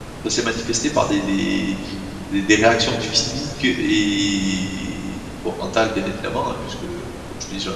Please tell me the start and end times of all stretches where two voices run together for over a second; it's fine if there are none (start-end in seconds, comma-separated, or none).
none